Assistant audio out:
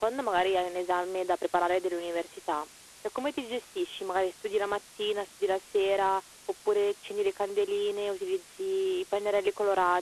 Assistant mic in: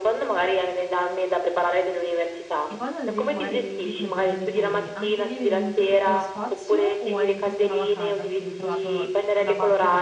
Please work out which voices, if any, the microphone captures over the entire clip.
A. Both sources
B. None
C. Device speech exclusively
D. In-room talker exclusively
A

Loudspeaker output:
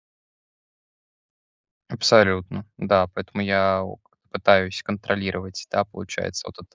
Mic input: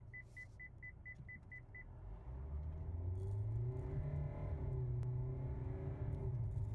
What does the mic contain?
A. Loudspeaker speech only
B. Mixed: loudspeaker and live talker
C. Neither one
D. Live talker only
C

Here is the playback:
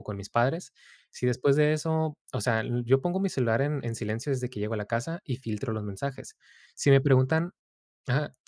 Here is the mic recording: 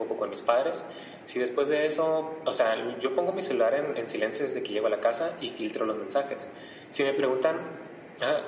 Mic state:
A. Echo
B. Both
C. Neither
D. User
A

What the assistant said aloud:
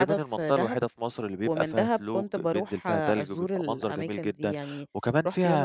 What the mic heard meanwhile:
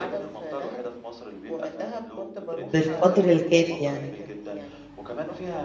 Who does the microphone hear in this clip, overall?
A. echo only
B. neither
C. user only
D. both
D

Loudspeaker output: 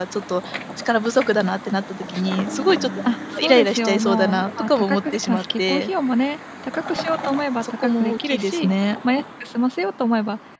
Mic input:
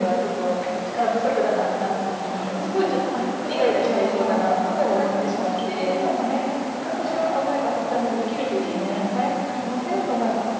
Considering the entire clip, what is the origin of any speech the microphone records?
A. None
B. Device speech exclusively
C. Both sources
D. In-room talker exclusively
B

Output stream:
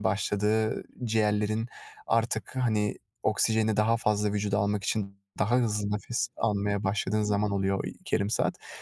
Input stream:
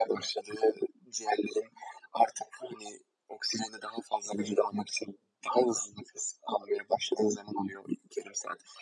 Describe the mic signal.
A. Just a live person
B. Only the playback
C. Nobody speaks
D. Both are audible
D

